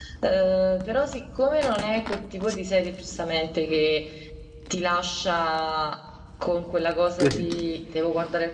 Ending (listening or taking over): listening